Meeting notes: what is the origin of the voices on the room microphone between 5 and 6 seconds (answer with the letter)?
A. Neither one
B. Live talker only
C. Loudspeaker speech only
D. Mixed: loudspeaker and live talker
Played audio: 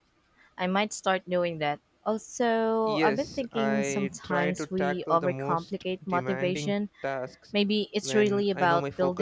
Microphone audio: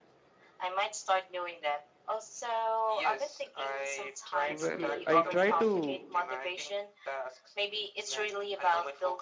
D